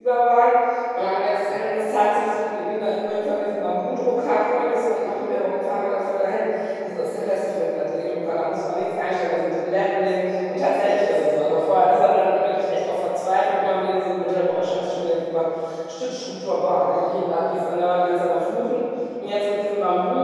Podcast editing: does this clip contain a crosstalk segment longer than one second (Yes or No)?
No